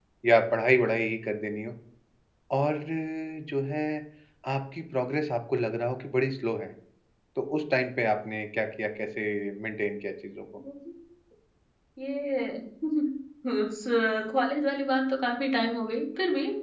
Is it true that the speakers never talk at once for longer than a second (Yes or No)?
Yes